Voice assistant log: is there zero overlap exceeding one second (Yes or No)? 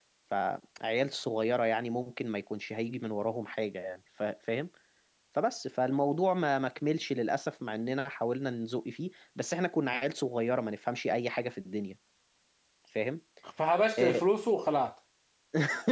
Yes